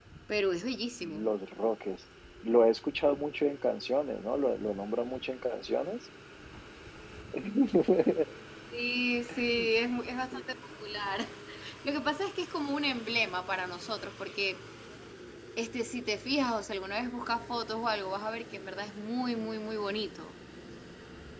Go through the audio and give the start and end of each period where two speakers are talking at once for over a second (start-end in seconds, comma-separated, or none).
none